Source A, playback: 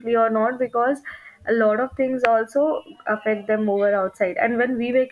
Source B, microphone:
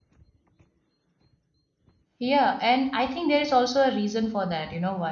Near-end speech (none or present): present